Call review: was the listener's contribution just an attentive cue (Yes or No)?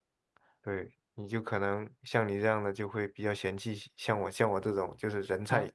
No